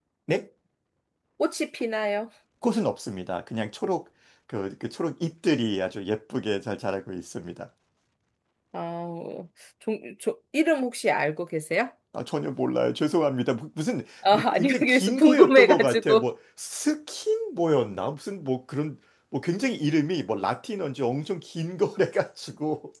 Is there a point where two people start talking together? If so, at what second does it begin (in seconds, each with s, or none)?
14.2 s